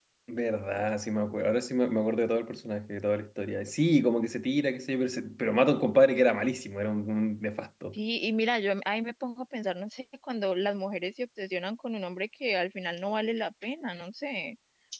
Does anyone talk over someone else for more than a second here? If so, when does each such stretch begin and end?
none

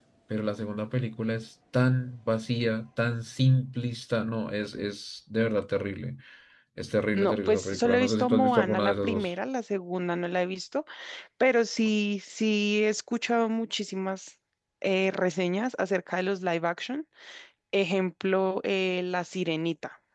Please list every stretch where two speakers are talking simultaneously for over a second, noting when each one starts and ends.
7.1-9.3

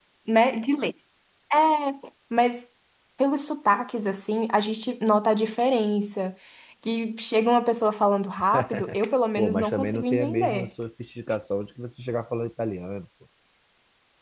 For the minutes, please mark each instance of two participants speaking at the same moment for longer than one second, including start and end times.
9.4-10.7

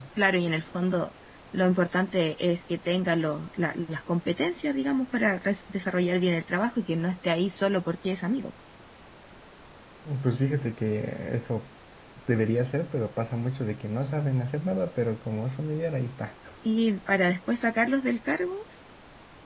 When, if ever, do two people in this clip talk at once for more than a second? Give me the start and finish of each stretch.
none

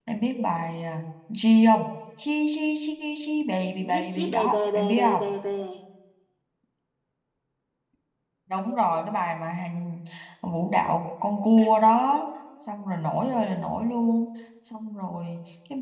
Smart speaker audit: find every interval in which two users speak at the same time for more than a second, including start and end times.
3.9-5.2

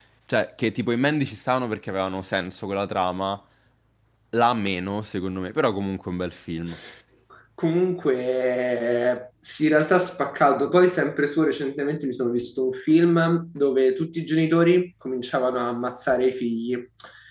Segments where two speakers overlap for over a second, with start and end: none

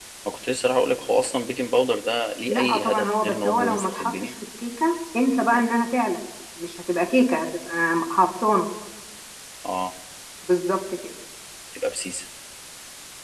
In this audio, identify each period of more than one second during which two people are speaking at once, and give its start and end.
2.5-4.1

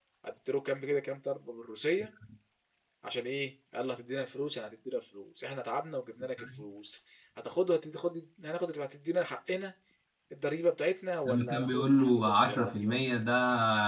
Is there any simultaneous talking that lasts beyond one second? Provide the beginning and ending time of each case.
11.2-13.0

